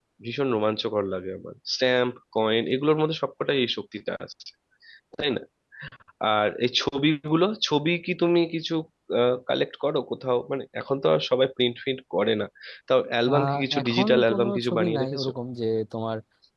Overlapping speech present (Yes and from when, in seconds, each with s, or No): Yes, from 13.3 s